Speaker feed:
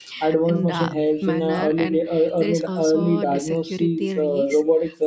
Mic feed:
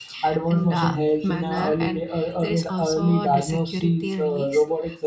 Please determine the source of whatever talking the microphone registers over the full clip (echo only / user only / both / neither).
echo only